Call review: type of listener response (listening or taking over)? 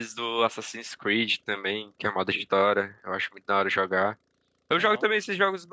listening